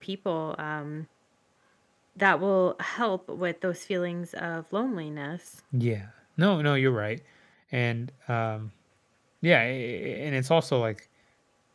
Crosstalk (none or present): none